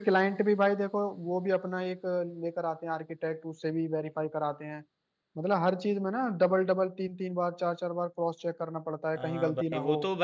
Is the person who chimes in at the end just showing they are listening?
No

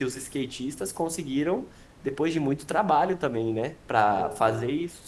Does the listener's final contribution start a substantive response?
No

